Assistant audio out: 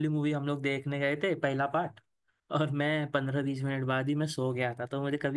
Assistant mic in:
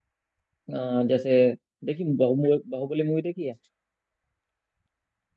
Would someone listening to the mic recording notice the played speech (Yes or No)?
No